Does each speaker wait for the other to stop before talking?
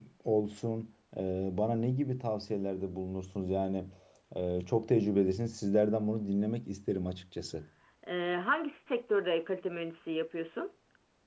Yes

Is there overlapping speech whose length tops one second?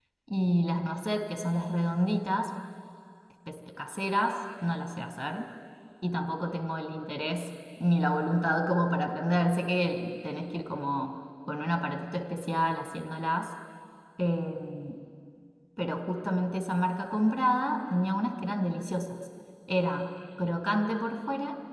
No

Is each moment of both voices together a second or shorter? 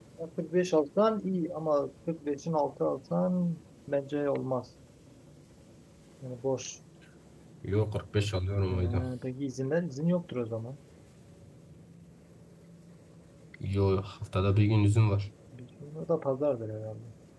Yes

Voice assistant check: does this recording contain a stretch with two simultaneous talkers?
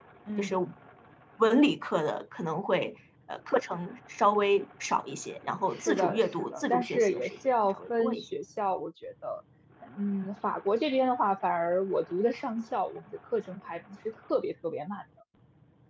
Yes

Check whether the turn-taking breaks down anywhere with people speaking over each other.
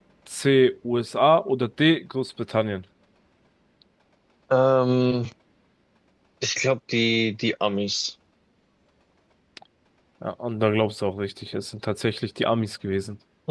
No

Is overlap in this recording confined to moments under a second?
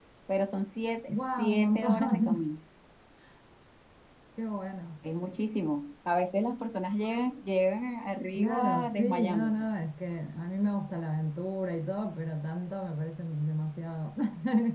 No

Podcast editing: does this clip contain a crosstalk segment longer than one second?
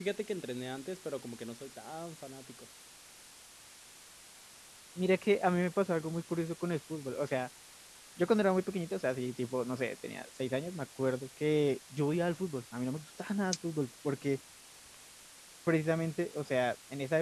No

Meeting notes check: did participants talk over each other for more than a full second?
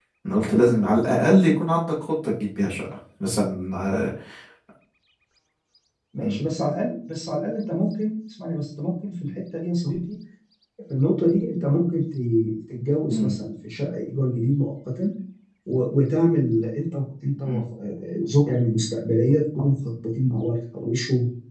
No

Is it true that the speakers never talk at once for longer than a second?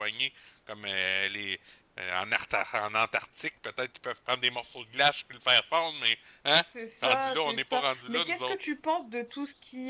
No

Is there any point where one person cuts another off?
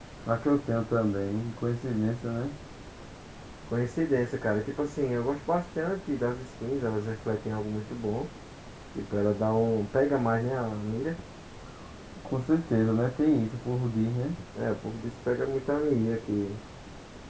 No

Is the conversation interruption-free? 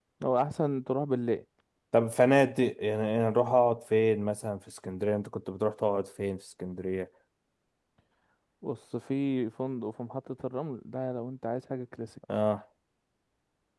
Yes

